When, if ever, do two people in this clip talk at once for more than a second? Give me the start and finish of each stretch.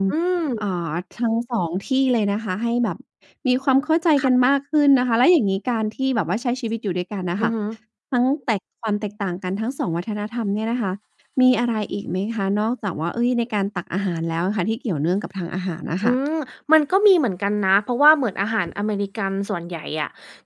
none

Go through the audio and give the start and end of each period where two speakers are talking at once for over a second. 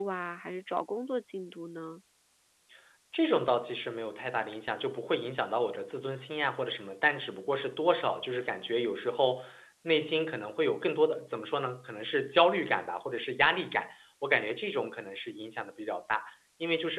none

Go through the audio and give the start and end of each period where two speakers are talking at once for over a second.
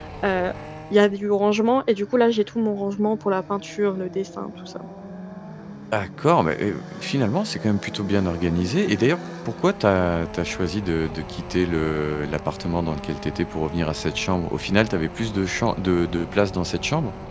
none

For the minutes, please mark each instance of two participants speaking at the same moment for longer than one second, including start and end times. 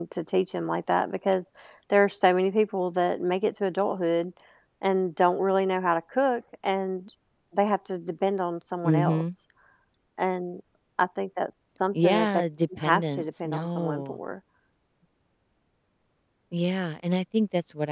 12.8-14.2

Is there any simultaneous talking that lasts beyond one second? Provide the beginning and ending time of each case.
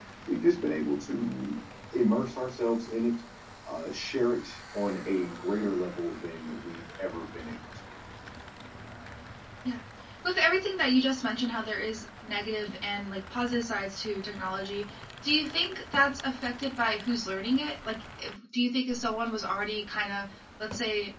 none

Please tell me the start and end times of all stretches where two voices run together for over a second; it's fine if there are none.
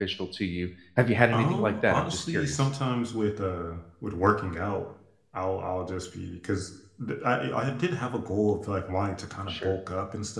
1.3-2.7

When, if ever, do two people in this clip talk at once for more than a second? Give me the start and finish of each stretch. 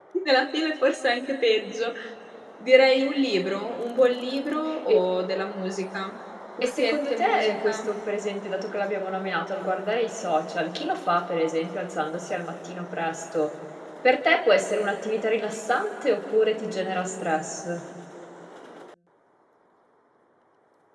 6.6-7.9

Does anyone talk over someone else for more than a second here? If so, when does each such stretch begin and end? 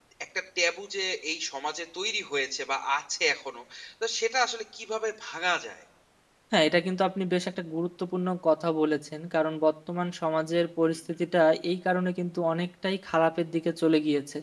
none

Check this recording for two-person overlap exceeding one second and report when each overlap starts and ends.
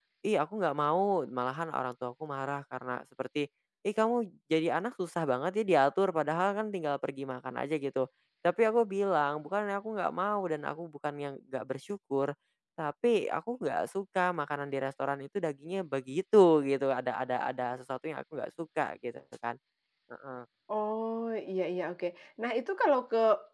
none

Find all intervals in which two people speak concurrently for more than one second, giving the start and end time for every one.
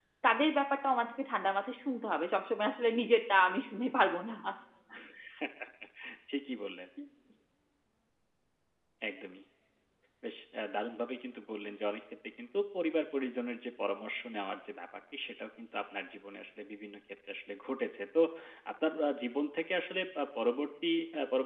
none

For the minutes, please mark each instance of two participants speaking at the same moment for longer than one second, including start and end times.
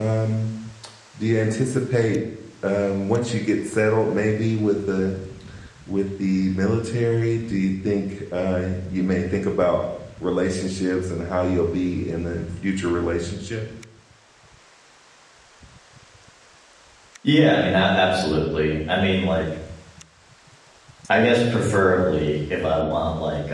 none

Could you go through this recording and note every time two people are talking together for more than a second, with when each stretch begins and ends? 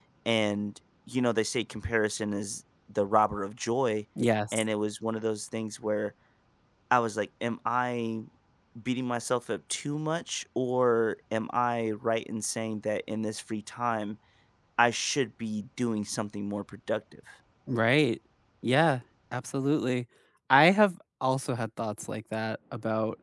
none

